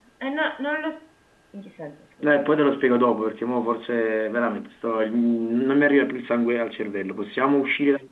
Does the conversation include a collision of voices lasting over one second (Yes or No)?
No